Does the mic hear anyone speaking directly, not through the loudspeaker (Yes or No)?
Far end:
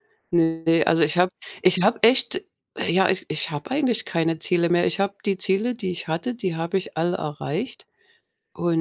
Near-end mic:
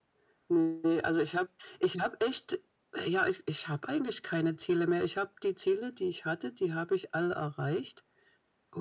No